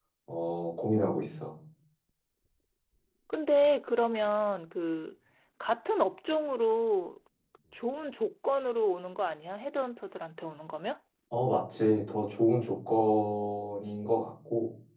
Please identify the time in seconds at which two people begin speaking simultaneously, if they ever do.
none

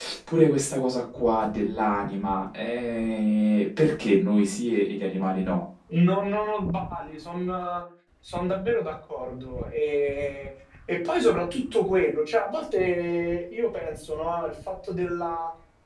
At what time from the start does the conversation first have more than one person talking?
none

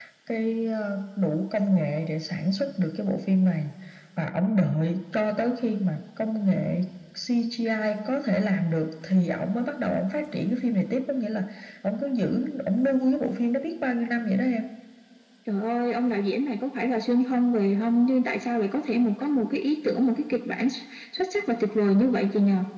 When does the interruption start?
none

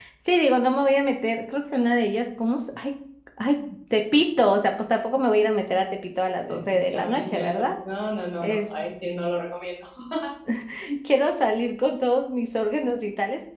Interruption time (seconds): 6.4 s

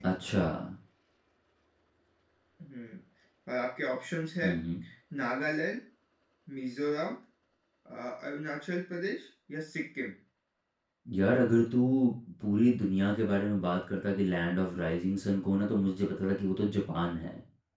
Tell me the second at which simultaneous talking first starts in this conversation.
none

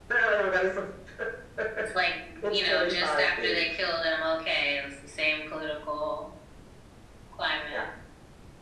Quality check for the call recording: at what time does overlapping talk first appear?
2.4 s

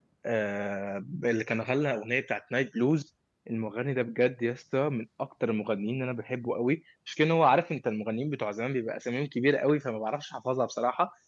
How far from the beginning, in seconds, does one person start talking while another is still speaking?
none

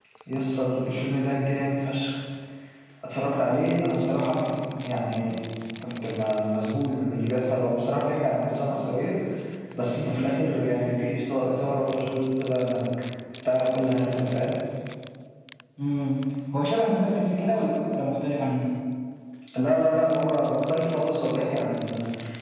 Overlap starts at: none

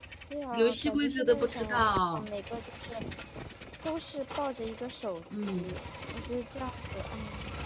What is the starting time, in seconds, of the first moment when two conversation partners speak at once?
0.5 s

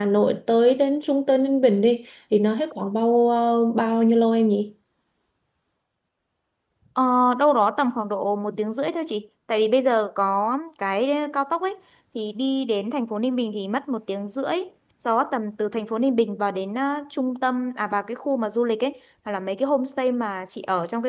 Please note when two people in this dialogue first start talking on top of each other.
none

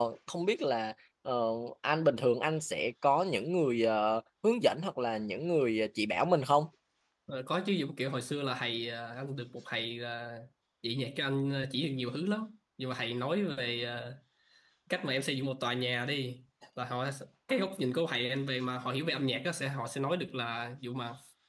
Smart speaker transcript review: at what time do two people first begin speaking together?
none

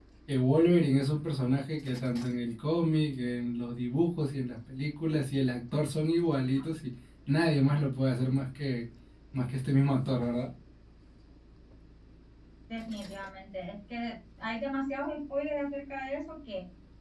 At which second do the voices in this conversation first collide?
none

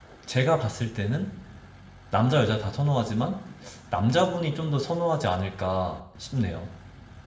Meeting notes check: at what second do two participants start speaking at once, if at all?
none

